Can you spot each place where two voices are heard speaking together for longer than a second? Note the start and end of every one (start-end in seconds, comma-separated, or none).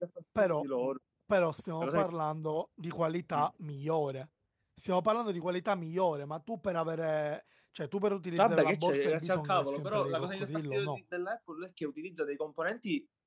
8.4-10.9